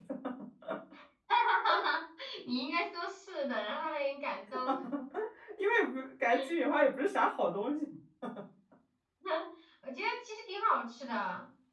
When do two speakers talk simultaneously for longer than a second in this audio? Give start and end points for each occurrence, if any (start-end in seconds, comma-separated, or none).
none